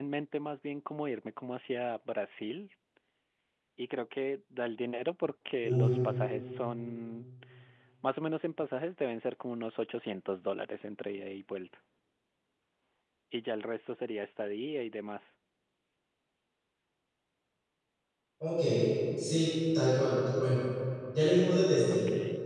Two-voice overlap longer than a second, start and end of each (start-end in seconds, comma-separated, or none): none